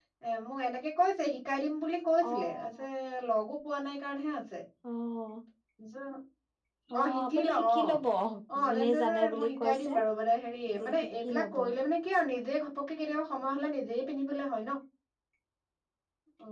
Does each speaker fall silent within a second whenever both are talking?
No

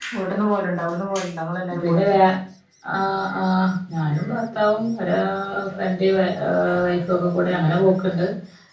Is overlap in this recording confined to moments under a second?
Yes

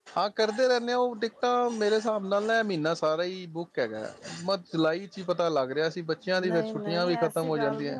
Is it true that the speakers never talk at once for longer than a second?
No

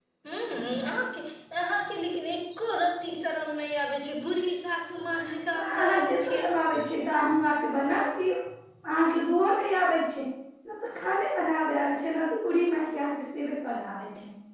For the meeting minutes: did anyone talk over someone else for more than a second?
Yes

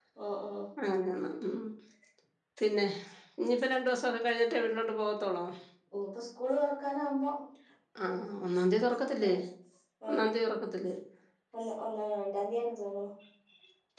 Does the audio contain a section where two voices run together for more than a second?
No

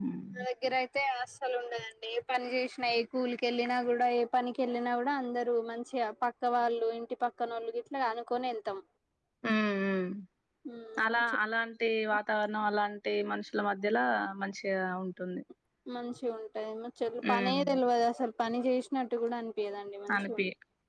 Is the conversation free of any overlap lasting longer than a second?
Yes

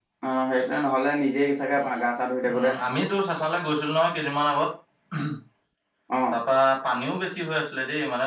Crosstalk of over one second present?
No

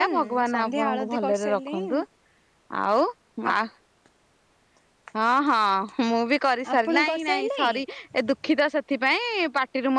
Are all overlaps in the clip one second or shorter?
No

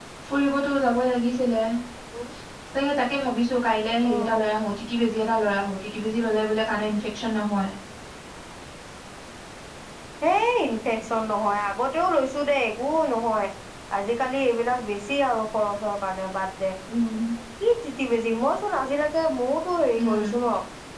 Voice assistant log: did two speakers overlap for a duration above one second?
No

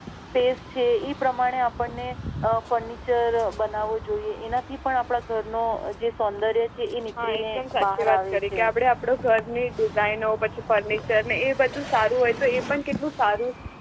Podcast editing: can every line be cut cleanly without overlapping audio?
No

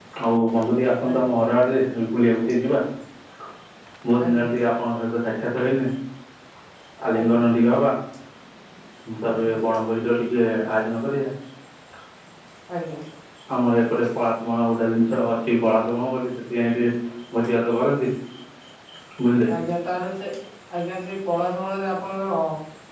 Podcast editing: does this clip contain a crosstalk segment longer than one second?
No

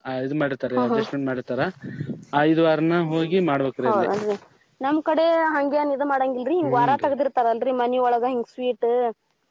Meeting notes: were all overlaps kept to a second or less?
Yes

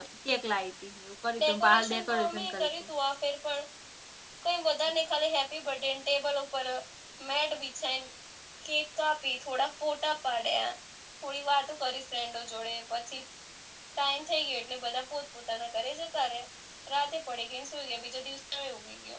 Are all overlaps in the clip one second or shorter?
No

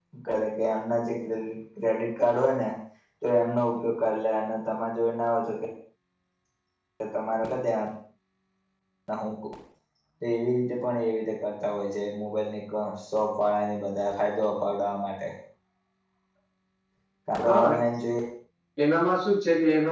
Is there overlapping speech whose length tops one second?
No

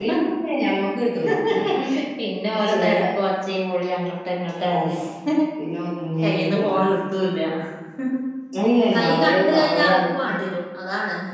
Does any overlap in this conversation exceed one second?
Yes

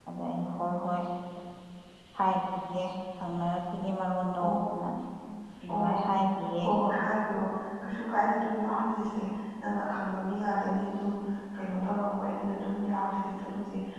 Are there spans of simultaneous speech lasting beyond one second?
No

